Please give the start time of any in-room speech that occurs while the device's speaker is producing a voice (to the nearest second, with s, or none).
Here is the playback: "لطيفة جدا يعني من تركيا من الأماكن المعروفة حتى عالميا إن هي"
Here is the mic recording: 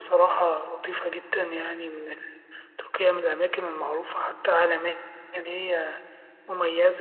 none